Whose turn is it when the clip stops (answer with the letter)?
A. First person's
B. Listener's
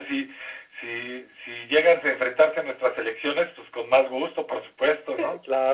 B